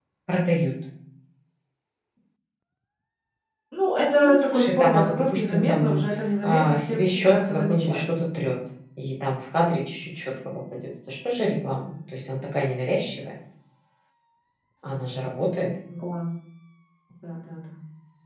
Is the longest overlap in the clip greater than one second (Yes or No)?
Yes